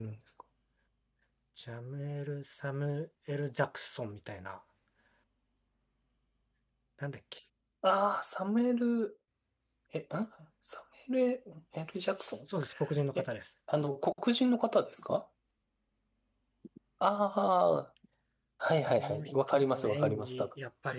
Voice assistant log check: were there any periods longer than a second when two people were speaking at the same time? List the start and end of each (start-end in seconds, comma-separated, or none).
19.0-20.5